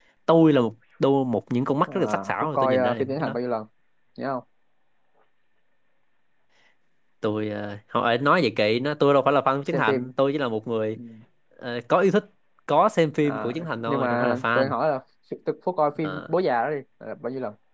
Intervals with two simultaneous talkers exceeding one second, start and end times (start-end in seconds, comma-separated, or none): 1.9-3.4, 13.2-14.7